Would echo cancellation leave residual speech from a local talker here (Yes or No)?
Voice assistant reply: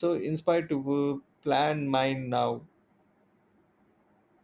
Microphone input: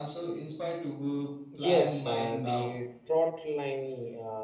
Yes